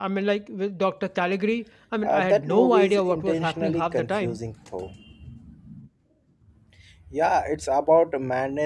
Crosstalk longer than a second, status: present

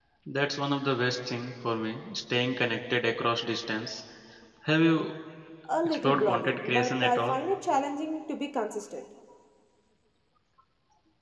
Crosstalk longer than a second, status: present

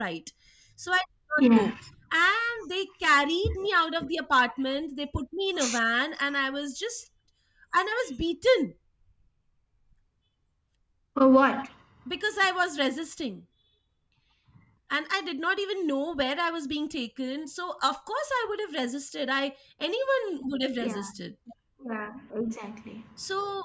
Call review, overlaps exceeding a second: none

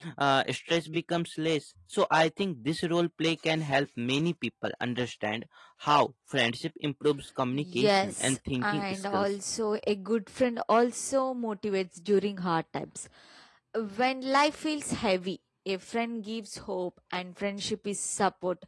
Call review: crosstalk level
present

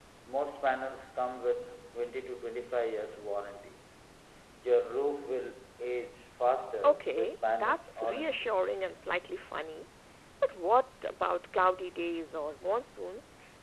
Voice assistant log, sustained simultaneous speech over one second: present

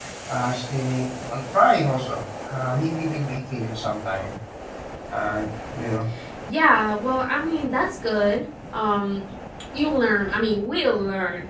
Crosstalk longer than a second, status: none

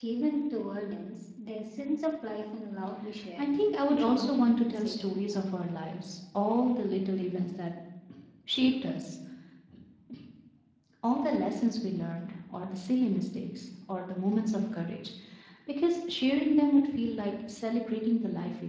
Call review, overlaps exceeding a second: present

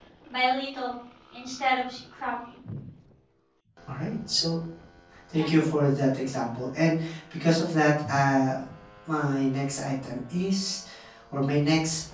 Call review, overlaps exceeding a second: none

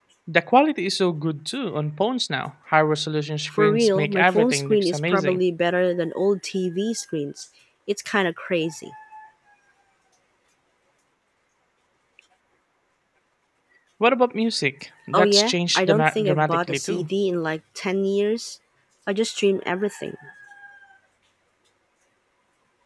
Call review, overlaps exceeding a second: present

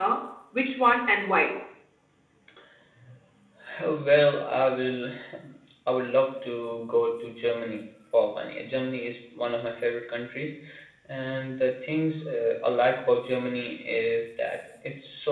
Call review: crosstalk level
none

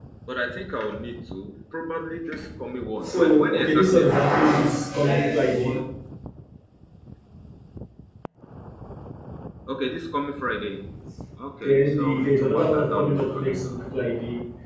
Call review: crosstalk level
present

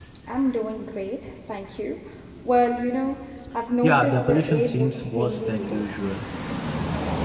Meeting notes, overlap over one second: present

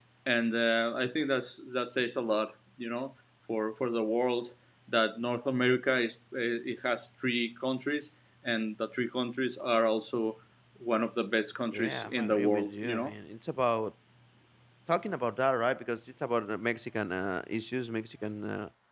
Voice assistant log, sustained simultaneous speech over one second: present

